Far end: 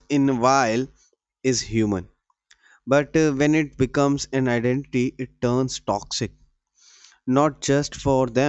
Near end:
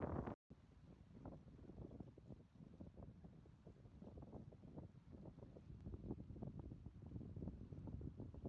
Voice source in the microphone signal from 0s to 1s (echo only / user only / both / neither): neither